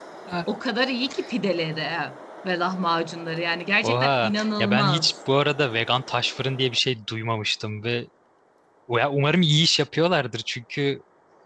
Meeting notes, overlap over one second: present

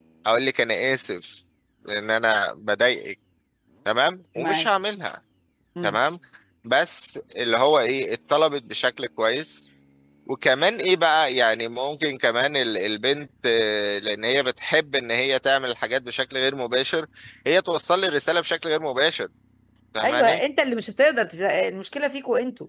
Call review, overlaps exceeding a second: none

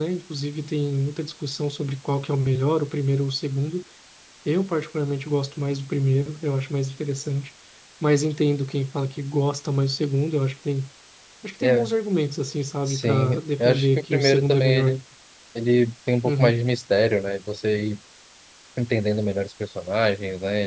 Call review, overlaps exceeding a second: present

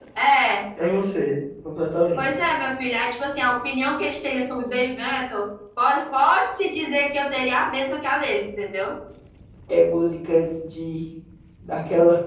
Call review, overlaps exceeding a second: none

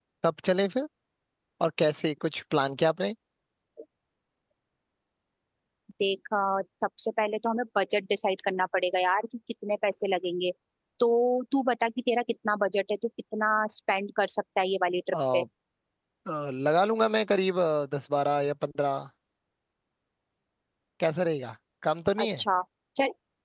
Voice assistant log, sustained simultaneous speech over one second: none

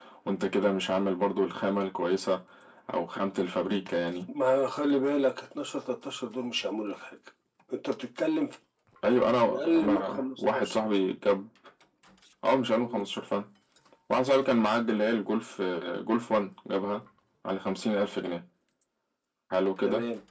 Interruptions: present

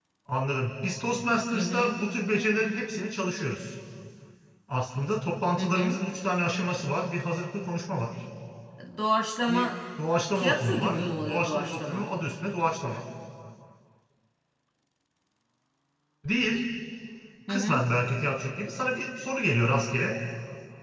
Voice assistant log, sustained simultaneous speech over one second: present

